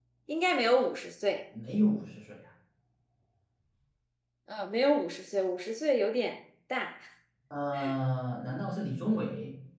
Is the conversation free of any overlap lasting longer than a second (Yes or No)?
Yes